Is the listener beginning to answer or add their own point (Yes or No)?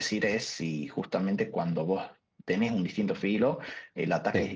No